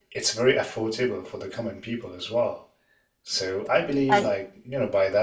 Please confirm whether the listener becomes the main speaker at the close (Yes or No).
No